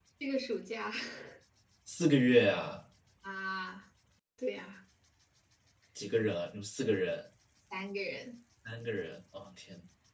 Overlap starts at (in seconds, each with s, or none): none